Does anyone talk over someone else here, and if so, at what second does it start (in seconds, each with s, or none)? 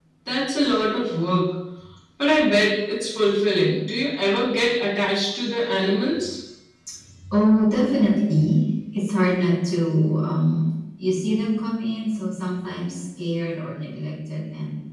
none